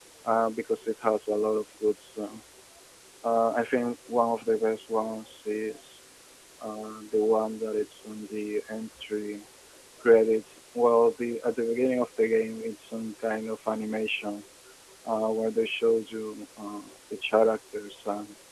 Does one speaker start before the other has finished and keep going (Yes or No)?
No